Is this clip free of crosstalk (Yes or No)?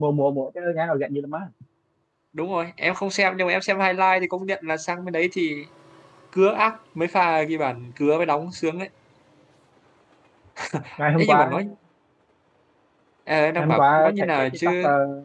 No